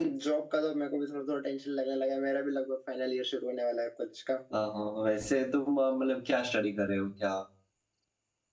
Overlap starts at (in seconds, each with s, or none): none